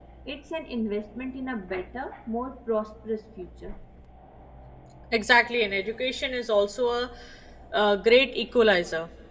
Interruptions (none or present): none